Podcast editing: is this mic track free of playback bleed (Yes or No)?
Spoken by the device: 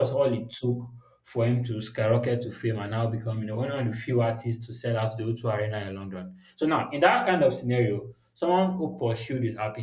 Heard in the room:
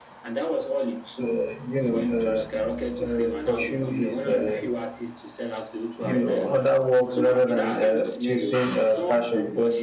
No